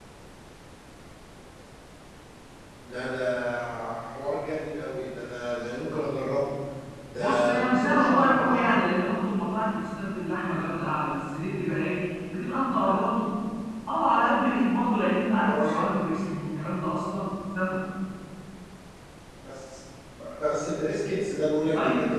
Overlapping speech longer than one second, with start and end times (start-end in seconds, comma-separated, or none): 7.2-8.8